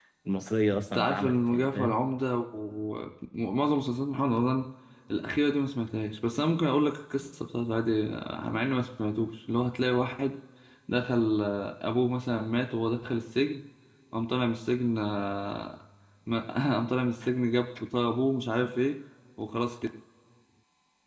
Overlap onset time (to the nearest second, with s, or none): 1 s